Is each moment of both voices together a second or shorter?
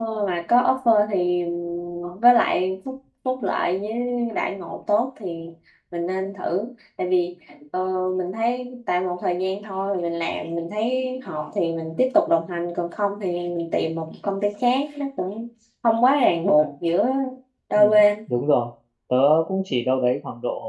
Yes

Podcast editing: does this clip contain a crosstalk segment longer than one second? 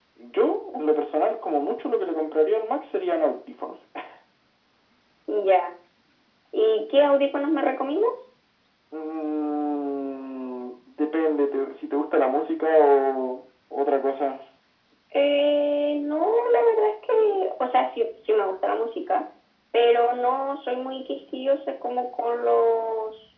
No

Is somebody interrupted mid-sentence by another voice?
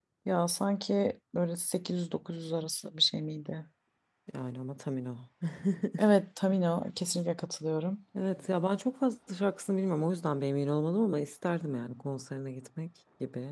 No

